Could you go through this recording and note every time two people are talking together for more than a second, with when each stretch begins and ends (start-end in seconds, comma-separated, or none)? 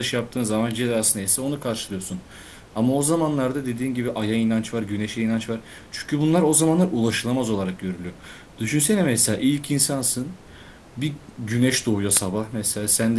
none